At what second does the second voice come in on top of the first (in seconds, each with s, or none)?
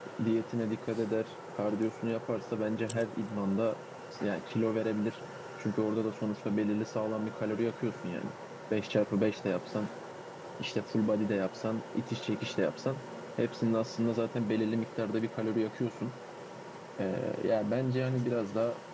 none